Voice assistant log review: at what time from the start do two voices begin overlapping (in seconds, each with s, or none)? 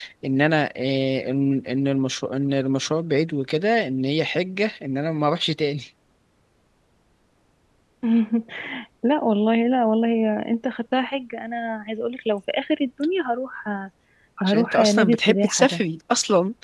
14.4 s